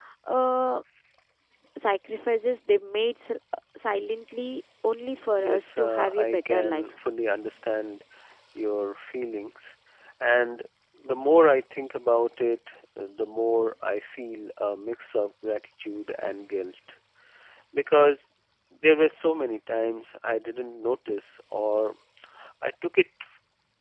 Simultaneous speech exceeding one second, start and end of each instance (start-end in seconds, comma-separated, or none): 5.4-6.8